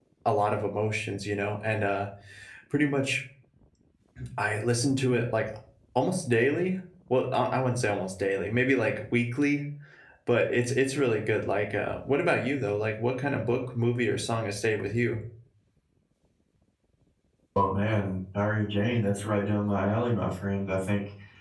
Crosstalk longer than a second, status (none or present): none